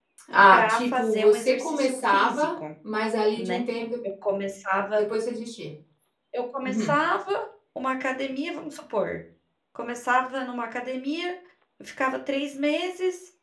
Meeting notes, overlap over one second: present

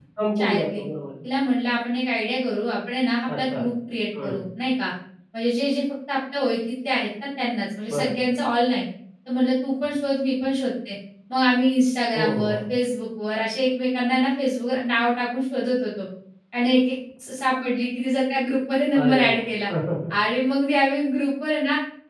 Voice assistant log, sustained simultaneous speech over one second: none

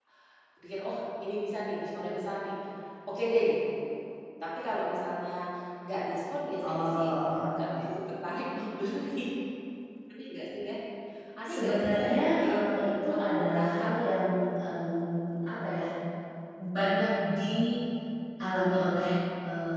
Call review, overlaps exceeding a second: present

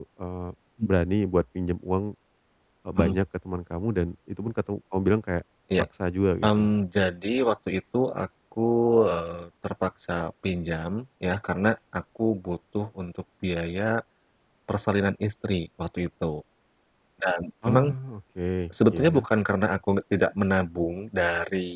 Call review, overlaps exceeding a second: none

